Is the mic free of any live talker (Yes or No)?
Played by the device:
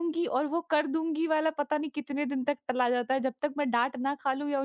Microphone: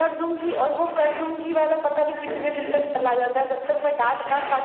No